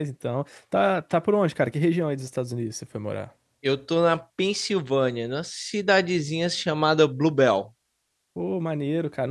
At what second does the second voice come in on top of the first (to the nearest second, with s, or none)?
none